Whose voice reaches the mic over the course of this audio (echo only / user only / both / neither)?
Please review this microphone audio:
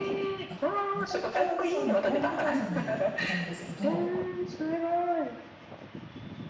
both